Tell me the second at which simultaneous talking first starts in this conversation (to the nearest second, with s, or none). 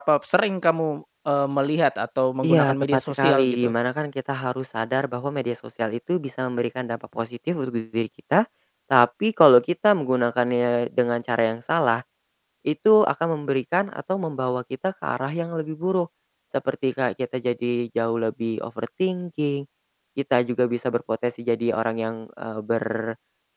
2 s